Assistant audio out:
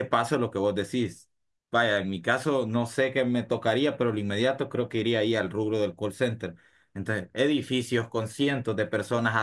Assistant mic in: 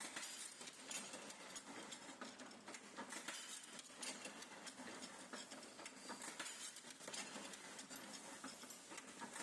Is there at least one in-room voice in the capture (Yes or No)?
No